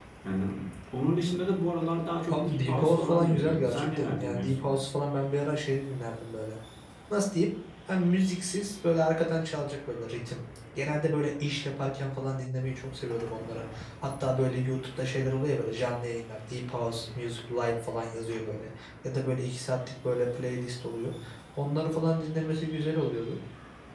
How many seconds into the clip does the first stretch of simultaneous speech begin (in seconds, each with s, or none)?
2.3 s